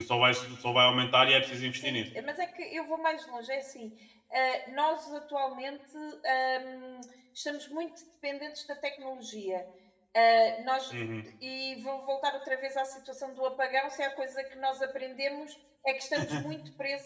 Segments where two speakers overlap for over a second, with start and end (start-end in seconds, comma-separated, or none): none